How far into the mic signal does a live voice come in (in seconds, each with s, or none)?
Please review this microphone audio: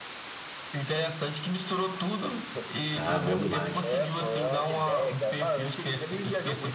2.9 s